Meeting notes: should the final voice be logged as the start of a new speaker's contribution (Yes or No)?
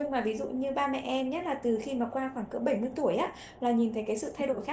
No